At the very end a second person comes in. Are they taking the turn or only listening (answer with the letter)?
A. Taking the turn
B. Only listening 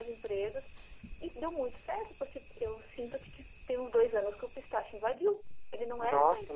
A